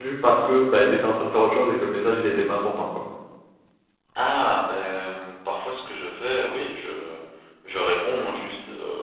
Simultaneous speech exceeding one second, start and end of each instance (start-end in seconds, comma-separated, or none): none